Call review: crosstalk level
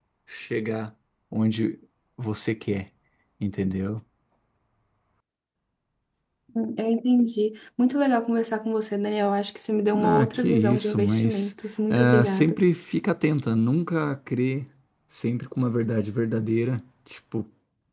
present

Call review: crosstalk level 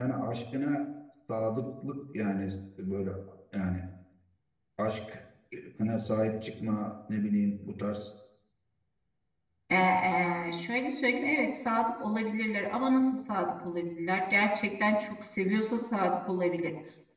none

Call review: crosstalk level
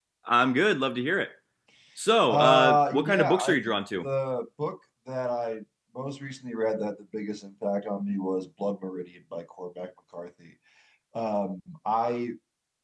present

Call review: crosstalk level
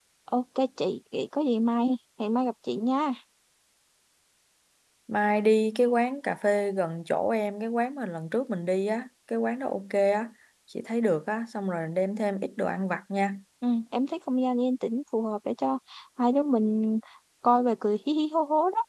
none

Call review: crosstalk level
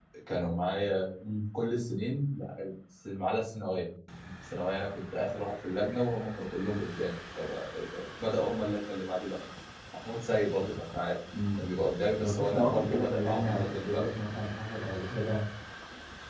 present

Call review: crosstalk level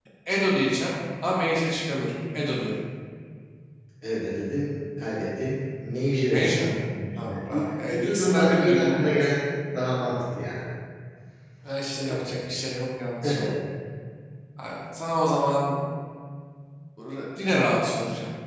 present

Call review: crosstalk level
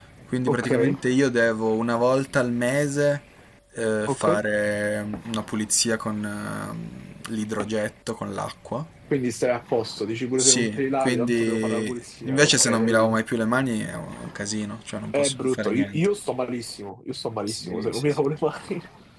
present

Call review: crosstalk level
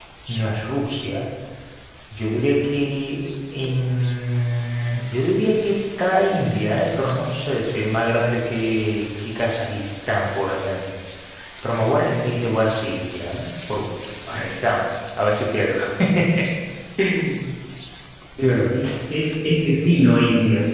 none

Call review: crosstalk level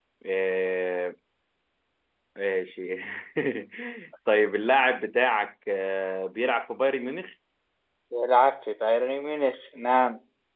none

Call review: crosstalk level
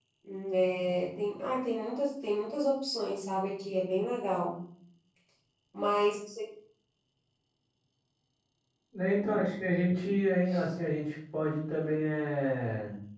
none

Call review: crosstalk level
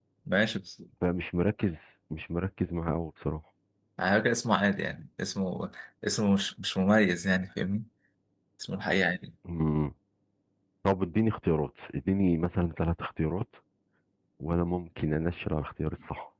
none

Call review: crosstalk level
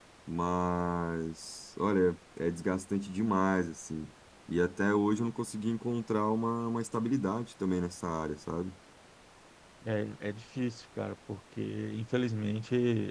none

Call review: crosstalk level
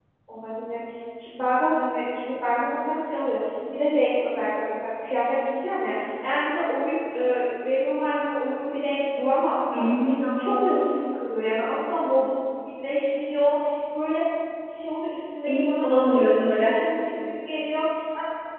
present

